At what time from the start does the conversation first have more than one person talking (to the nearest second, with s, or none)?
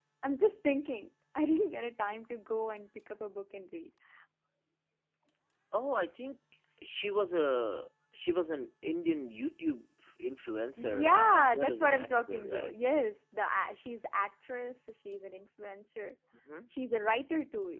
11 s